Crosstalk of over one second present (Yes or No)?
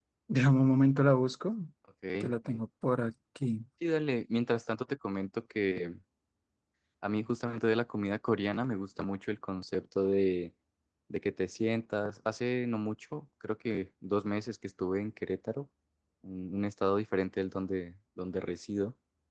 No